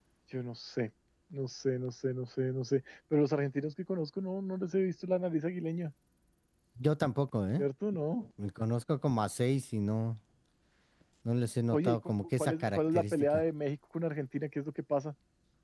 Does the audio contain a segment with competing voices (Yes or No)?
Yes